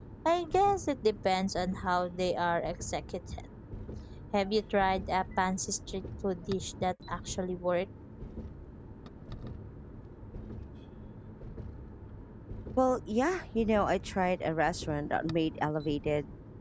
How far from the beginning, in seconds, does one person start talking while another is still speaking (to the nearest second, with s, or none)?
none